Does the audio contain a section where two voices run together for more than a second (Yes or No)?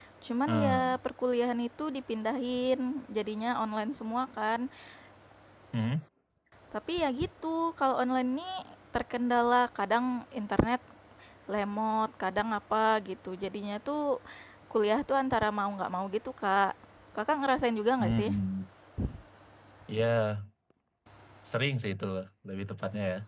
No